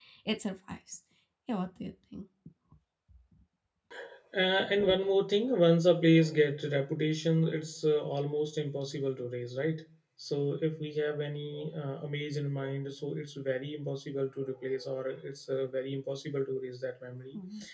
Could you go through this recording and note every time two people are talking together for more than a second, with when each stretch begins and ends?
none

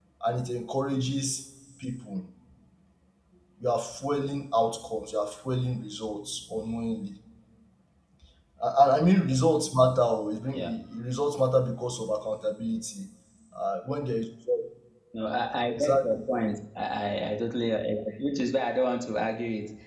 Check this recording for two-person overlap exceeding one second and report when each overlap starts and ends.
none

